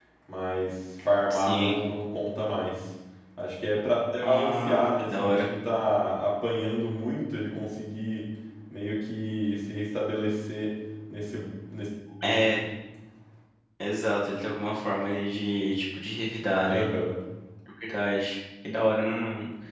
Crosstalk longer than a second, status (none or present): present